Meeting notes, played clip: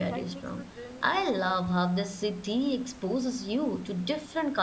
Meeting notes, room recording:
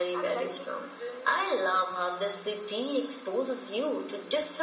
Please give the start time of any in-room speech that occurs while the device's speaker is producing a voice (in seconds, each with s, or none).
none